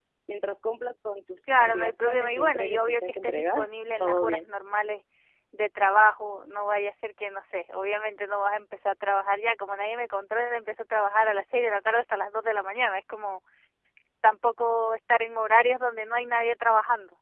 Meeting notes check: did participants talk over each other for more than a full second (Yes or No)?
Yes